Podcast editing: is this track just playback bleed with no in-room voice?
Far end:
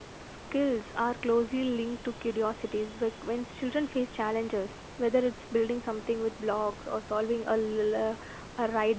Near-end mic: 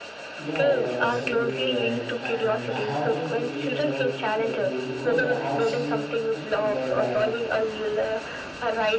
No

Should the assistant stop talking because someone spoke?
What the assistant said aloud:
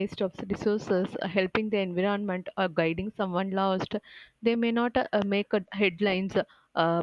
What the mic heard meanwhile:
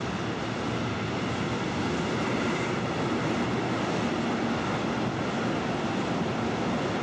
No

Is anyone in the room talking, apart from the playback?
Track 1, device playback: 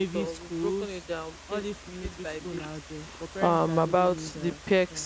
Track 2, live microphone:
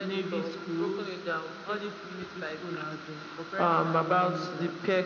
No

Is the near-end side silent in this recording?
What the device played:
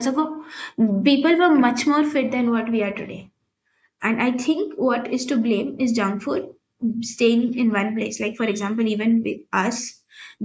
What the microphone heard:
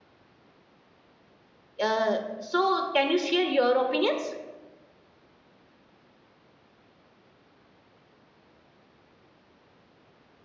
No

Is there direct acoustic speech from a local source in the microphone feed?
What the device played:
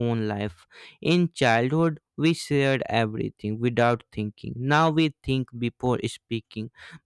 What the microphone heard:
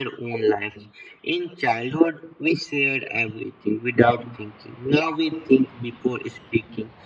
No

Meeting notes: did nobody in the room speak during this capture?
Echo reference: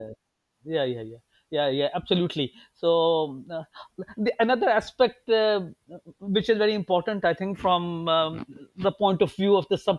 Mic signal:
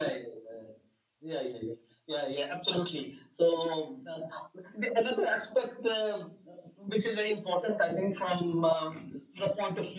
Yes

